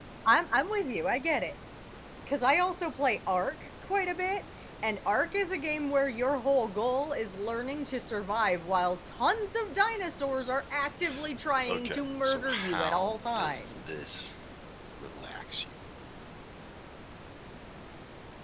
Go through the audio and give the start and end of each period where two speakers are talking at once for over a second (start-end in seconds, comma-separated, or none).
11.7-13.7